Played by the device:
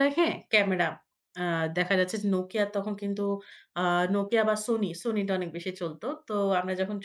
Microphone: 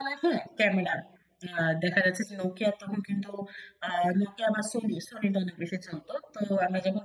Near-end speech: none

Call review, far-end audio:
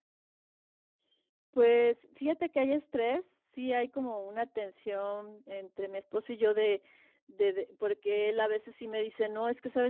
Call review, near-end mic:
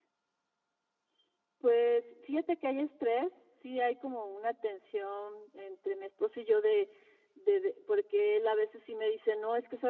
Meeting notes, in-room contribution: none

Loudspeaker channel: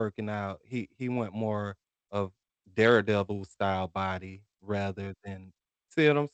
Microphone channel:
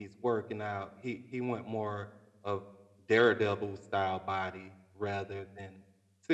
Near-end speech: none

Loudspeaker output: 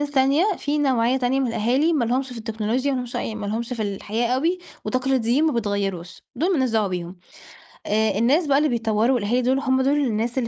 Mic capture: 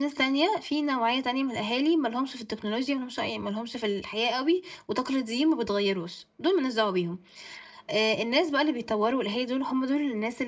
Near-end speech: none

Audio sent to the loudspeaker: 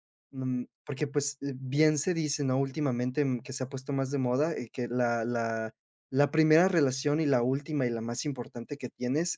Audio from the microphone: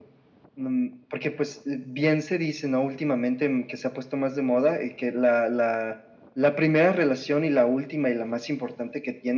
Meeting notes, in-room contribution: none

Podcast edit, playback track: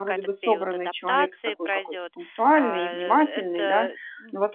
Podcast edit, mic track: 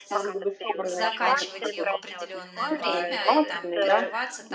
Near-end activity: present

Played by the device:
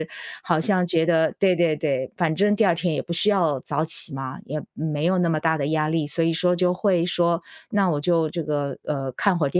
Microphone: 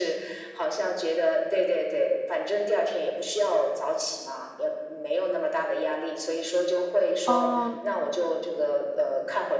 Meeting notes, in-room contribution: present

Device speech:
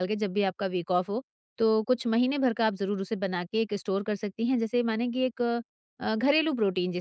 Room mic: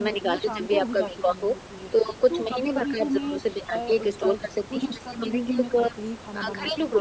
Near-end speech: present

